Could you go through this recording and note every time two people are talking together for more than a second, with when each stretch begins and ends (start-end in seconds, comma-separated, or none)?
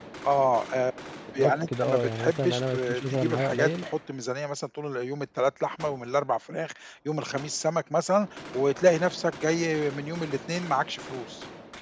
1.4-3.9